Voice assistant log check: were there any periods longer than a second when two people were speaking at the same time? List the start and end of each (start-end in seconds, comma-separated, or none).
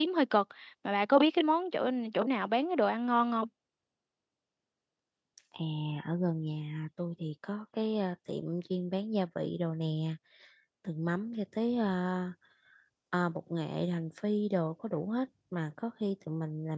none